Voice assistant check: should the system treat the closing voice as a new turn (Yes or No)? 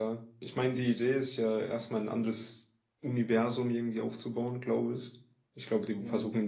No